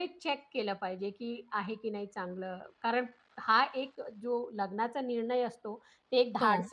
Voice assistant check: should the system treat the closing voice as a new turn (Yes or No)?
No